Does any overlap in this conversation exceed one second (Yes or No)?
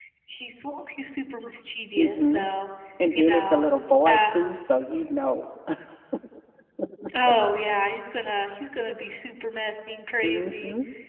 No